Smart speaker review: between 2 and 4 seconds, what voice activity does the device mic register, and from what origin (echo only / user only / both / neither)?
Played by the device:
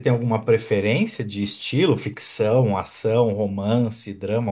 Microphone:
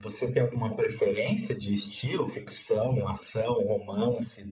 echo only